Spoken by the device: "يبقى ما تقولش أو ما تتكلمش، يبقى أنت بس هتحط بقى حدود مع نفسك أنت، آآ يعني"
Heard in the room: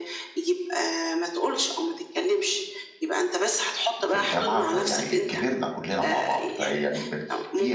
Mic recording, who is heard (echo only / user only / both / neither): both